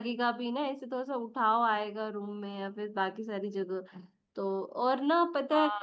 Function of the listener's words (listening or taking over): taking over